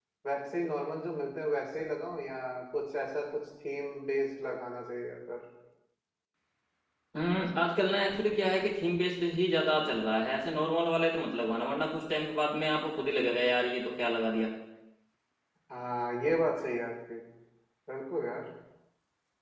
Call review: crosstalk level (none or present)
none